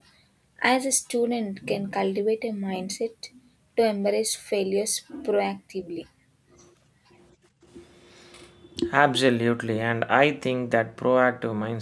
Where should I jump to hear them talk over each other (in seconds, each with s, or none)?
none